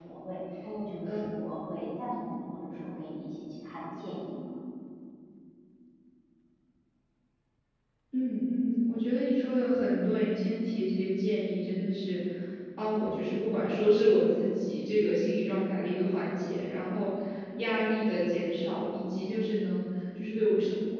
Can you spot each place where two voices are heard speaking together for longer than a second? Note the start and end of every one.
none

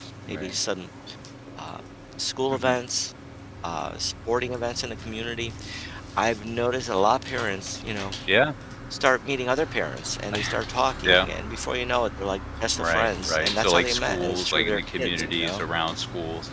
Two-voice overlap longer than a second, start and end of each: 12.8-15.6

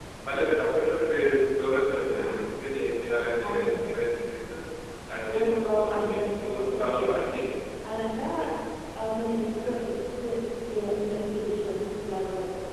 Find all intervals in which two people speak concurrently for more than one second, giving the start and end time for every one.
5.3-7.2

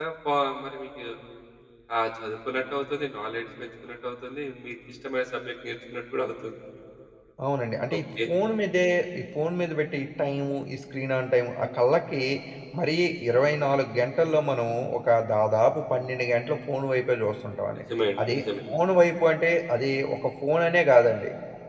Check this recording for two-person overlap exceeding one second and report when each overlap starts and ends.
none

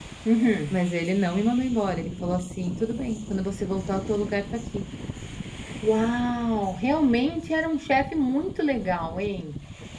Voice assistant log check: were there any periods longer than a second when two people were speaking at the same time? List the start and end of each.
none

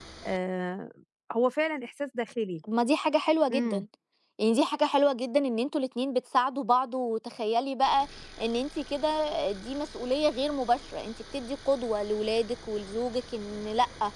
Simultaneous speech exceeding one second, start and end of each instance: none

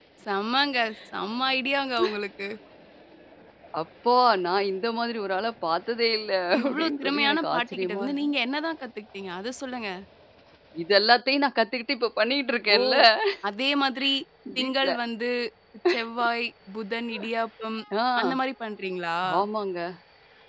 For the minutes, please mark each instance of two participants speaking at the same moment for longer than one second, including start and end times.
6.6-8.3

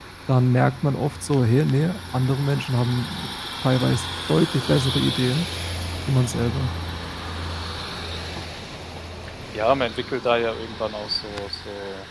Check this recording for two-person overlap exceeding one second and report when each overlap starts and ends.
none

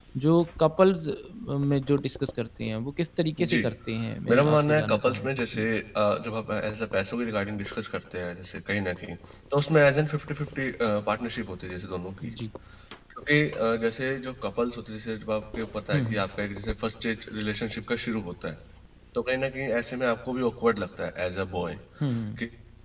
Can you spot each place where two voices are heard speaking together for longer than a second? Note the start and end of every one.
4.3-5.7

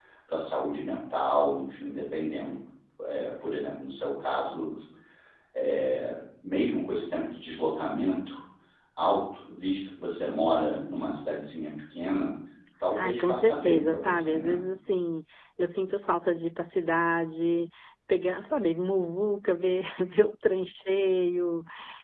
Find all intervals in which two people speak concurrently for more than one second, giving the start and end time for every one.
12.9-14.6

